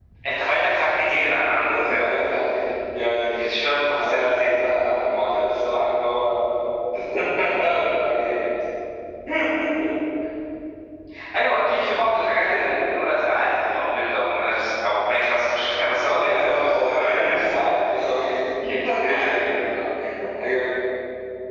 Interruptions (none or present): present